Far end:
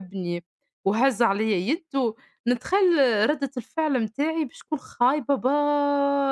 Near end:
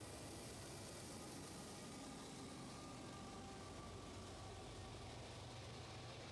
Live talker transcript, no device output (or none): none